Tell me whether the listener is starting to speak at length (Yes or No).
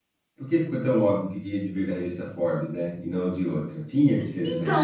Yes